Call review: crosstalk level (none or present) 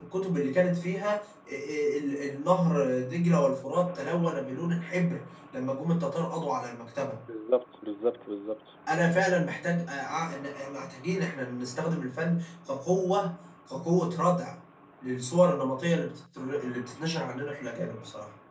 none